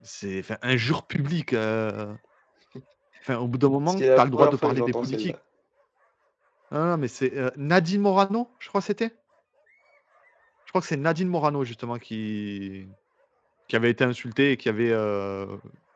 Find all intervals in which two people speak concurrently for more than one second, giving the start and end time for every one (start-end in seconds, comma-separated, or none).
3.9-5.3